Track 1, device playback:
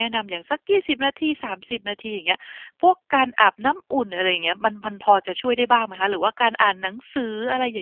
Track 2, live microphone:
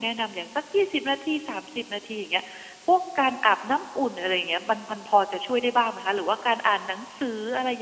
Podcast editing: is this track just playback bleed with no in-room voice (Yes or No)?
Yes